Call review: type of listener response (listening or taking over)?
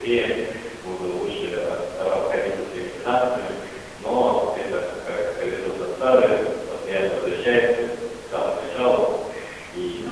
listening